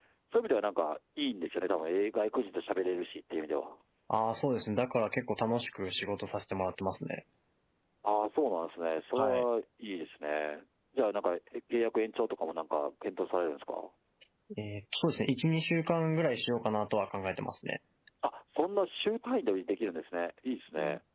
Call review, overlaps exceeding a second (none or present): none